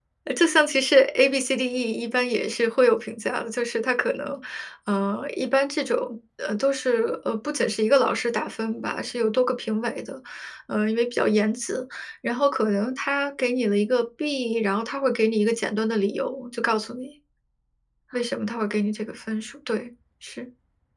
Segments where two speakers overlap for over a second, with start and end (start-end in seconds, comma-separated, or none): none